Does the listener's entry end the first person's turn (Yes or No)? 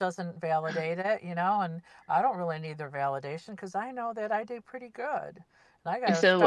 No